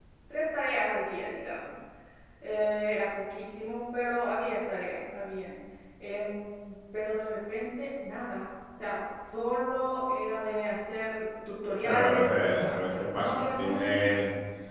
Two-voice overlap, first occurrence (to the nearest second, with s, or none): 12 s